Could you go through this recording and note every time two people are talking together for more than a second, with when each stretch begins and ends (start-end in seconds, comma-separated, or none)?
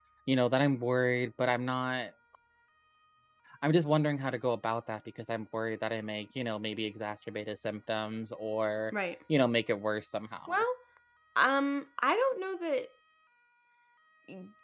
none